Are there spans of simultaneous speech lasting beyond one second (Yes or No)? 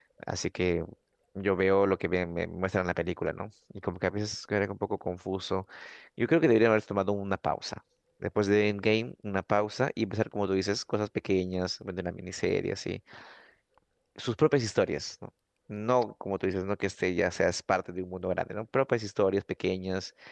No